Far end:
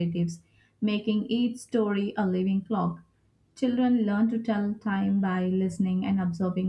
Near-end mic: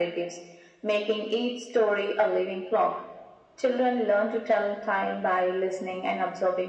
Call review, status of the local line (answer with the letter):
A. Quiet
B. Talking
A